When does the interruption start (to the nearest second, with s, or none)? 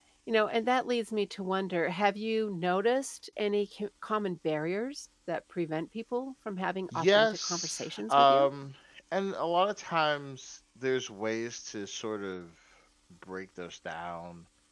7 s